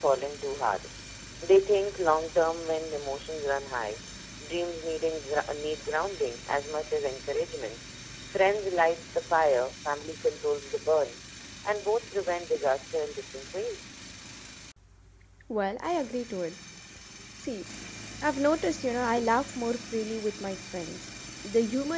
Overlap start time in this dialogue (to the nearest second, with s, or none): none